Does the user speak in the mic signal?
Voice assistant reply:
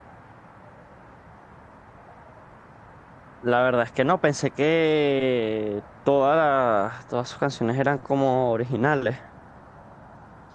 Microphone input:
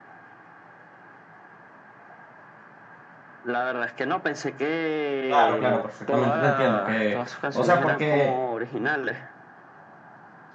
Yes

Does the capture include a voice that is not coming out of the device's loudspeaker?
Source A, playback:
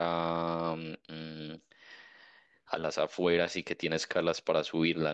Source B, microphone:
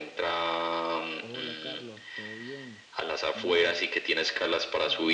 Yes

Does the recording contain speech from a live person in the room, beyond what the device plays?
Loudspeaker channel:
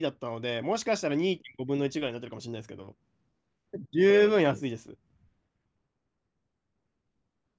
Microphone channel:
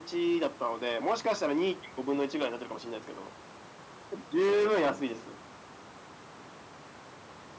No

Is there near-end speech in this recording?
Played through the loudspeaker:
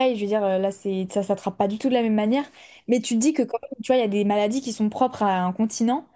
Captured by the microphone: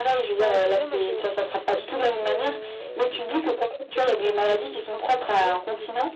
Yes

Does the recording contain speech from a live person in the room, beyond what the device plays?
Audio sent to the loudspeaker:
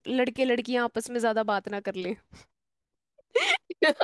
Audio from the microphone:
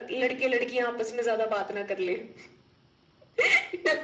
No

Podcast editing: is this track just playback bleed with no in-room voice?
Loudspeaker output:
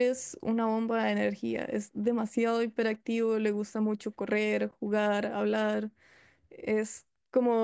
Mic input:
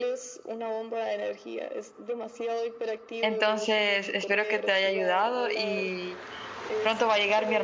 No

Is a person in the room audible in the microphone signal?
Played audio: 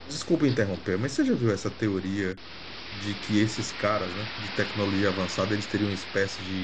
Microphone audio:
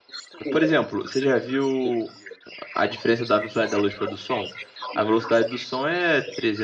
Yes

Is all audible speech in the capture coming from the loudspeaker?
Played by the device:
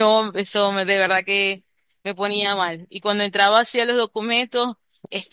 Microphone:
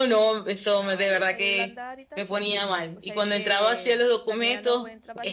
No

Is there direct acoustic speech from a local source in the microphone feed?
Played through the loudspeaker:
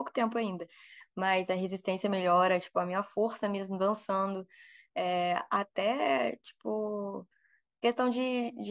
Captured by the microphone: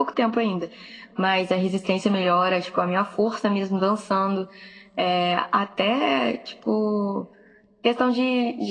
No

